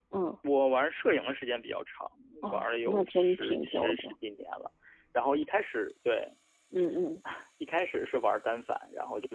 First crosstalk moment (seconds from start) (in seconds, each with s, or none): 2.5 s